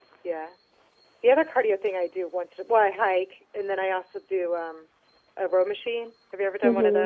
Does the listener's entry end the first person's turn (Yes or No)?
Yes